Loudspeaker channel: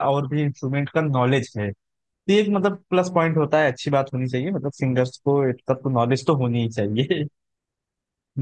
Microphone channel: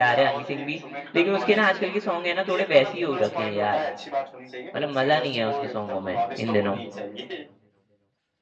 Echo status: present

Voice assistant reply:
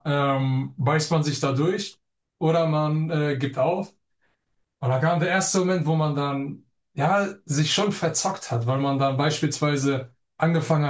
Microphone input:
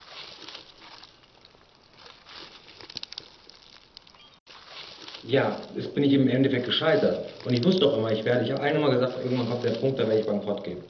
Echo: none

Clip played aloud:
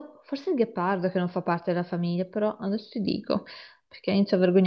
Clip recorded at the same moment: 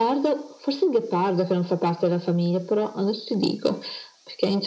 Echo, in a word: present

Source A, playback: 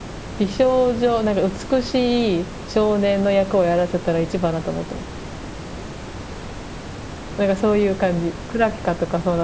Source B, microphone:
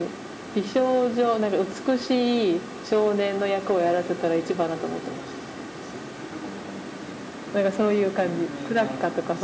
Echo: present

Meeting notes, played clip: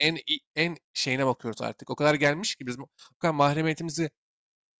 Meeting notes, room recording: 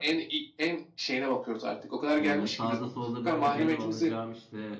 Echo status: present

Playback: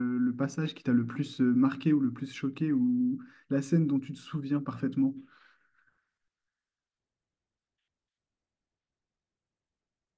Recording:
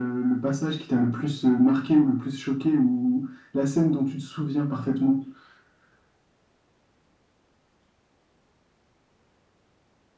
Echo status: present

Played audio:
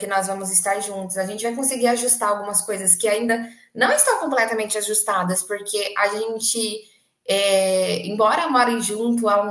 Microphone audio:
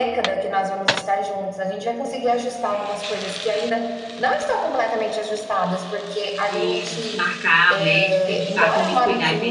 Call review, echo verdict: present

